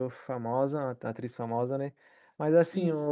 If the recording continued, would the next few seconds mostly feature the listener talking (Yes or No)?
No